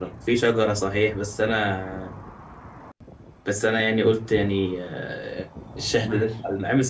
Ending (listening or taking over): listening